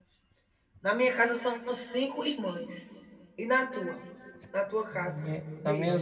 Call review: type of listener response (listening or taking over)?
taking over